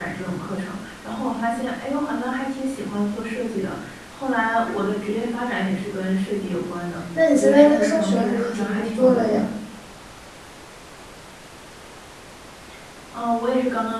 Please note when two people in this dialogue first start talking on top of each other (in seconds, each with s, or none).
7.2 s